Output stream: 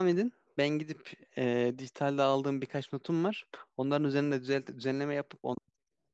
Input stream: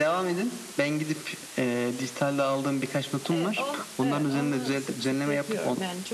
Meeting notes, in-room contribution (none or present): present